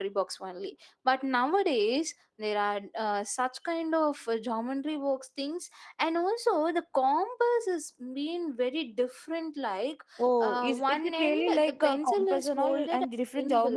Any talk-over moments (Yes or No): Yes